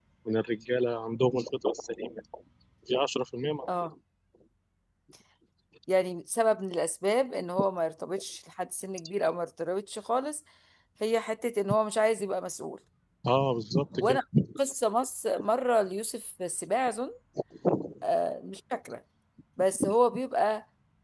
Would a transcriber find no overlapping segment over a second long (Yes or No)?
Yes